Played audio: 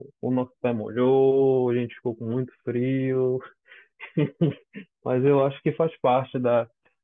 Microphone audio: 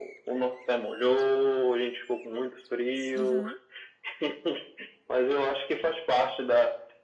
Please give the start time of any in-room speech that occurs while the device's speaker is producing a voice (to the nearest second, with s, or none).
3 s